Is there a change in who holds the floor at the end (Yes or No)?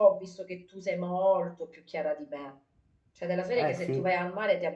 No